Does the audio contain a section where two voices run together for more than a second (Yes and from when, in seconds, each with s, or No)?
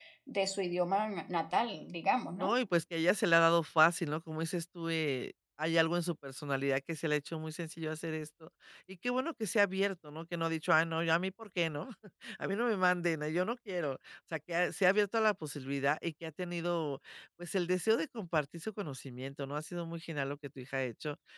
No